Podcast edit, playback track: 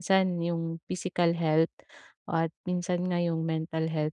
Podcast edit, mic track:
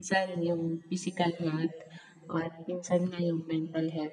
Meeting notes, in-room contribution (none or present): none